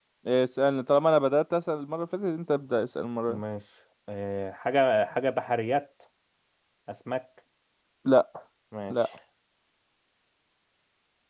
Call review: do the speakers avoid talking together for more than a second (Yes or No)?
Yes